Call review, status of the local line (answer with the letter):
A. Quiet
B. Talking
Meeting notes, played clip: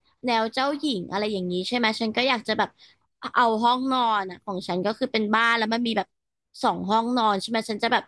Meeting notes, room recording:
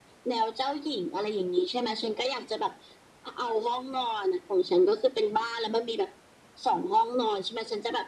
A